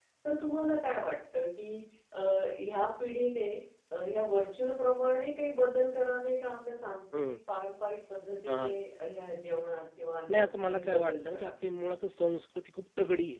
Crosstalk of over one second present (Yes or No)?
Yes